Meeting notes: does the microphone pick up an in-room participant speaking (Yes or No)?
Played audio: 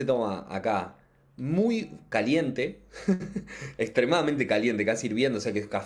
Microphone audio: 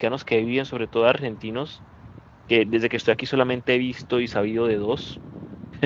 Yes